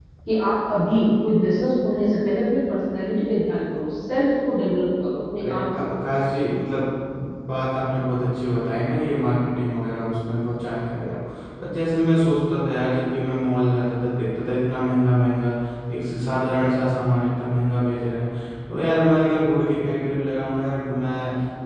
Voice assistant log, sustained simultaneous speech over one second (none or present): none